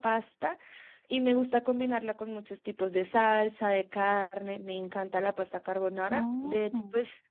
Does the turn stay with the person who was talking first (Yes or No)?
Yes